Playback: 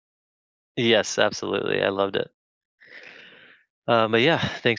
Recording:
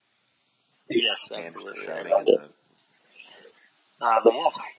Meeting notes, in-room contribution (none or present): present